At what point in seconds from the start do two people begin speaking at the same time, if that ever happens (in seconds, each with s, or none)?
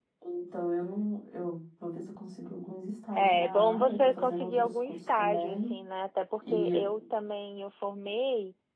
3.2 s